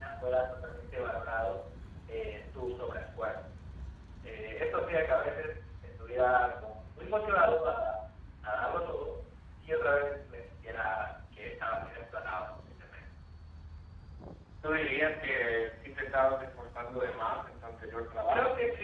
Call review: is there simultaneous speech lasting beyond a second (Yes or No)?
No